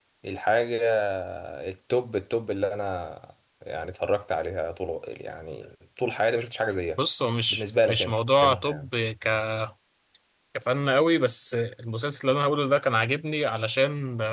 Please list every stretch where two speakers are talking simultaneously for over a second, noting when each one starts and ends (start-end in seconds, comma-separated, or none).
7.5-8.9